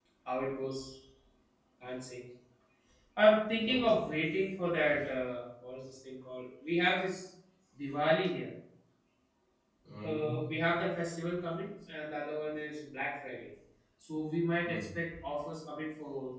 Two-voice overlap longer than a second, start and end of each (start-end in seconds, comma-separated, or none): none